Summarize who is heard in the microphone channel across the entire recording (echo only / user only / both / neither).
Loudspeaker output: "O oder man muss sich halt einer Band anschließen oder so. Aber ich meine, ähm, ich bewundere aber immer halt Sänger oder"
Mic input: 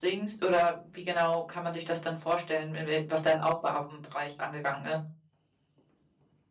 user only